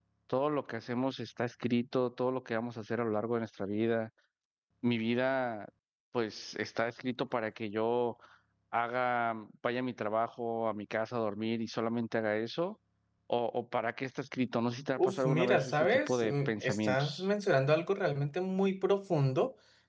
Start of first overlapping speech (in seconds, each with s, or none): 15.0 s